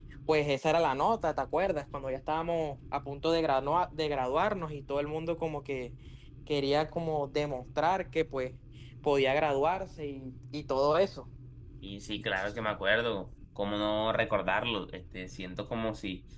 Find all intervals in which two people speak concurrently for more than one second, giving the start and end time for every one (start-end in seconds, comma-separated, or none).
none